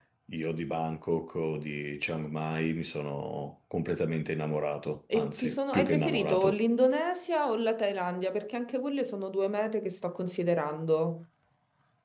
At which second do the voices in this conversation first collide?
5.1 s

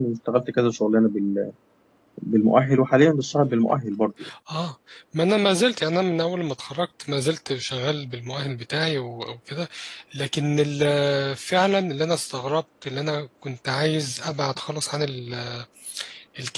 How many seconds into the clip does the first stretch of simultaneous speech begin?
none

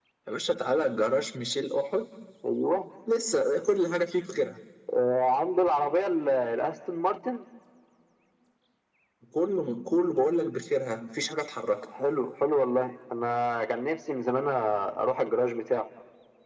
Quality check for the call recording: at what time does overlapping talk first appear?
none

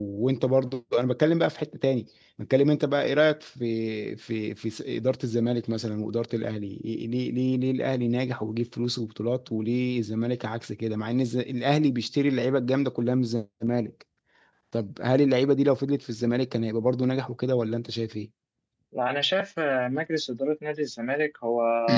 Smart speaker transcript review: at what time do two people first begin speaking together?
none

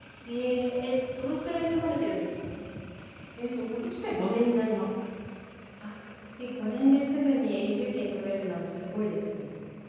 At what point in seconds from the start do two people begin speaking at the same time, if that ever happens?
none

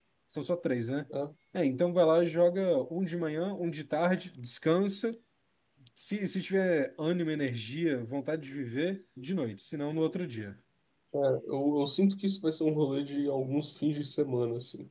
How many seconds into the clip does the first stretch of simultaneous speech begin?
none

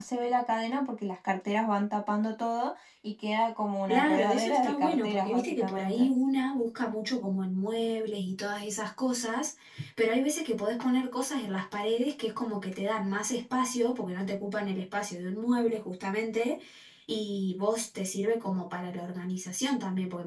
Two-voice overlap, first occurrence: 3.9 s

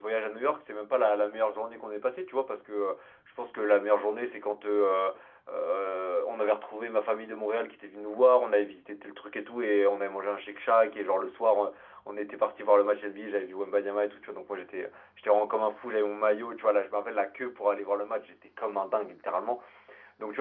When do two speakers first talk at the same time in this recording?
none

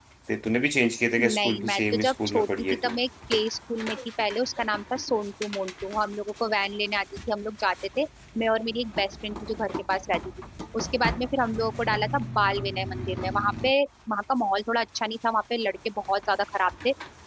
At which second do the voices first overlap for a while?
1.2 s

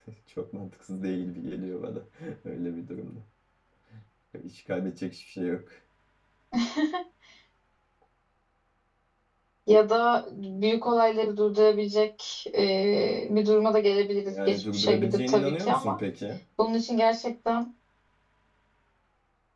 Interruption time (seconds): 14.3 s

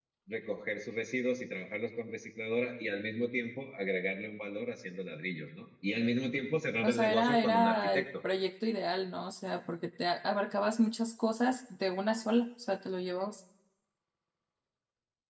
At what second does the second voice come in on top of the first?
6.8 s

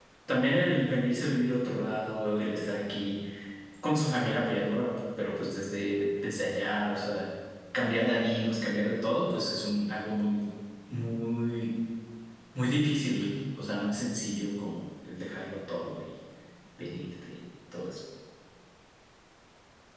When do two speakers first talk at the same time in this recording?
none

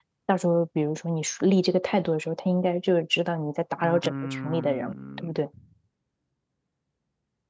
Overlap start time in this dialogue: 3.8 s

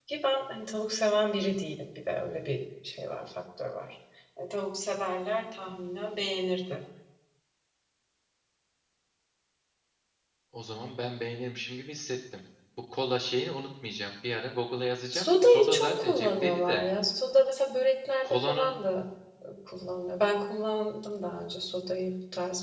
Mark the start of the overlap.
15.1 s

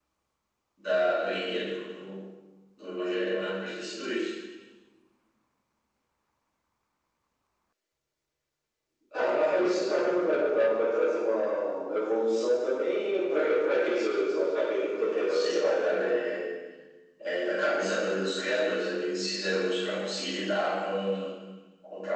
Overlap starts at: 14.7 s

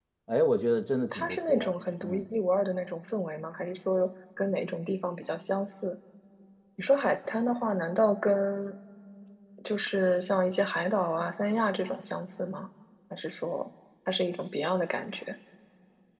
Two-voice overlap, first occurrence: 1.0 s

